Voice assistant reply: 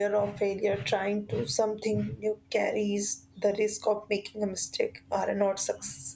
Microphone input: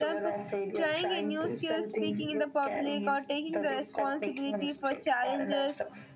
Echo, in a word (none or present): present